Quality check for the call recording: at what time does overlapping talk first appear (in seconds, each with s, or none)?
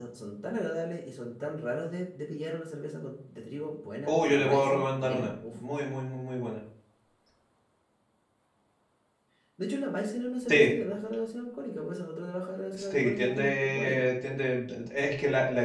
4.0 s